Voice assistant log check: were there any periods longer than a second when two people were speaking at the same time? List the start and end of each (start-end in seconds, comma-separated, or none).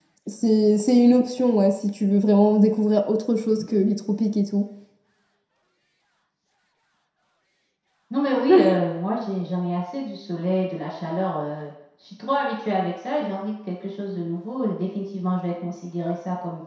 none